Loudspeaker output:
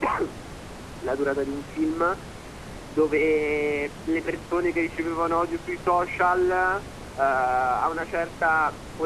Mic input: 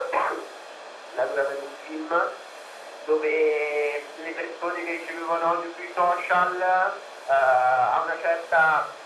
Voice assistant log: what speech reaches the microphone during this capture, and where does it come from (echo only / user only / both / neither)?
echo only